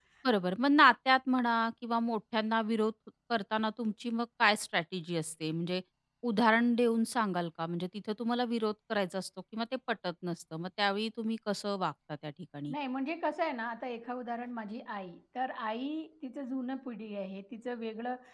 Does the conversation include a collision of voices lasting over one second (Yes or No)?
No